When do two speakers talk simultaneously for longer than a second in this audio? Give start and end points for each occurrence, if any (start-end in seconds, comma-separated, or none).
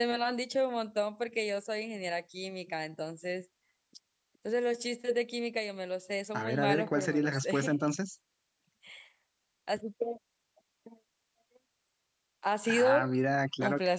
6.3-7.9